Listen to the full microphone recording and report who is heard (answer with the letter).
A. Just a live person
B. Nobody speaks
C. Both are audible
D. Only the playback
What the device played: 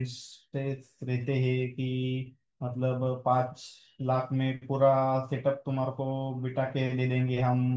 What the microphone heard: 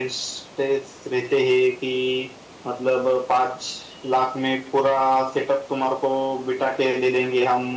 D